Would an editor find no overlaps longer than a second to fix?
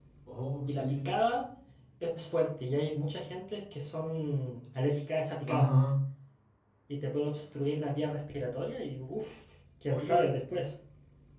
Yes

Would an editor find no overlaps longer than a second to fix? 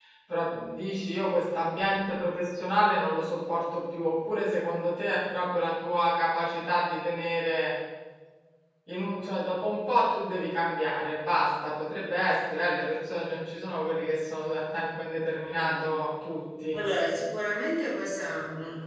Yes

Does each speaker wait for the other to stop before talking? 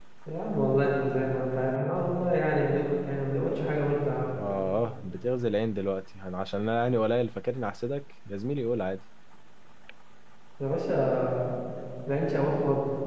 Yes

